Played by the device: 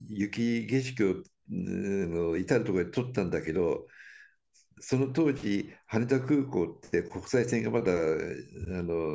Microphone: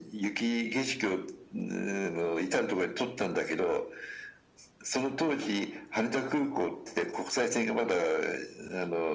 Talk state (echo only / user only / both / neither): echo only